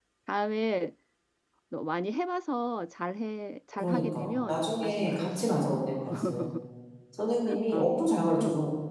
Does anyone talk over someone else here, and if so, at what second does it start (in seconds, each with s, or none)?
3.7 s